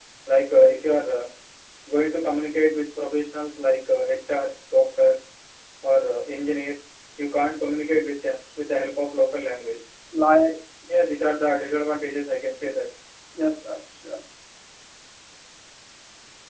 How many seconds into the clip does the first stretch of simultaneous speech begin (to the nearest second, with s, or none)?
none